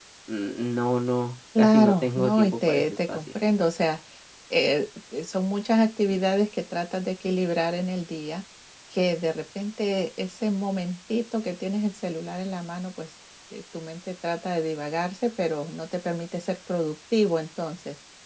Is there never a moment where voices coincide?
No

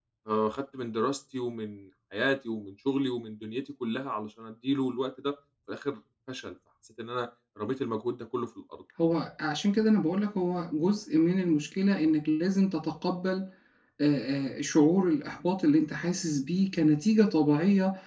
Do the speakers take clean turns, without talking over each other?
Yes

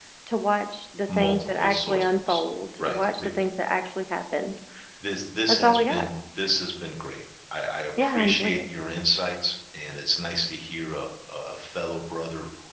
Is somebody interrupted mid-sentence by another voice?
Yes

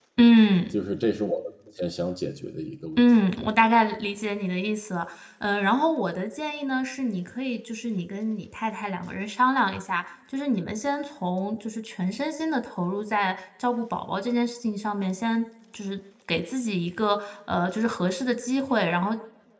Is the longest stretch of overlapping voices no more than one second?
Yes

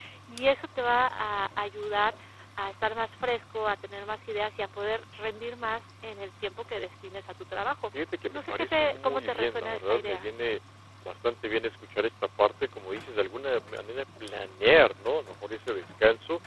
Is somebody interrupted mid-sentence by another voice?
Yes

